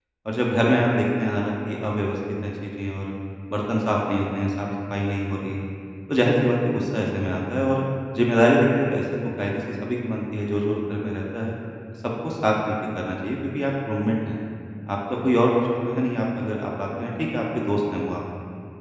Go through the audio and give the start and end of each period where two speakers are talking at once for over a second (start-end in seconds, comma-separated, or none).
none